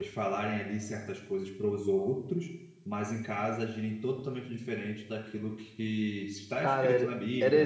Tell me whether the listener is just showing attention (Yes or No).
No